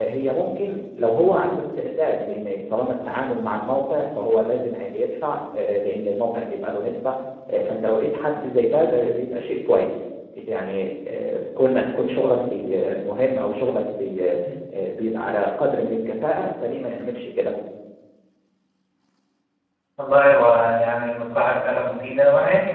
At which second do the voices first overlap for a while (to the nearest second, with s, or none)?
none